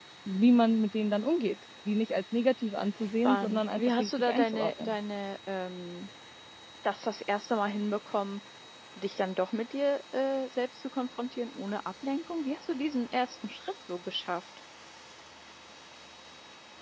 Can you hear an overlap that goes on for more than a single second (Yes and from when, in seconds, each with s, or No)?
Yes, from 3.2 s